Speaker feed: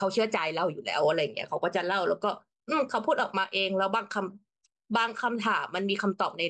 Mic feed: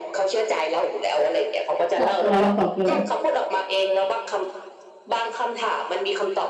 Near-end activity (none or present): present